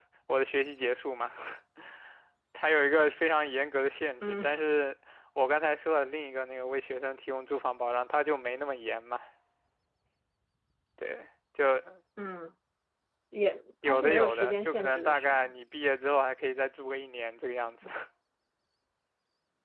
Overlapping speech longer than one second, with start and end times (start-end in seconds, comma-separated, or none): 13.8-15.5